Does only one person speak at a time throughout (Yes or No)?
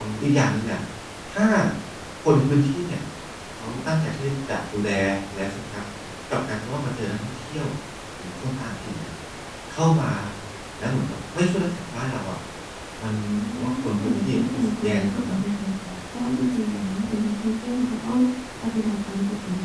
No